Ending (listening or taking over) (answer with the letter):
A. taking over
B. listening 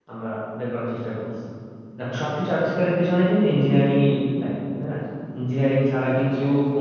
B